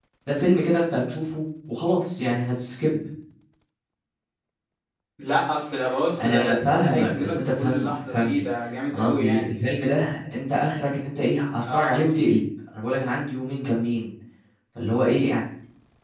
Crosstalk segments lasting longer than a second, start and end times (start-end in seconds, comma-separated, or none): 6.2-8.4